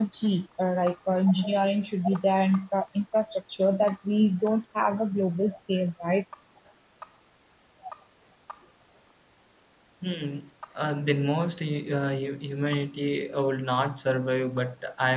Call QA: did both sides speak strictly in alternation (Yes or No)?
Yes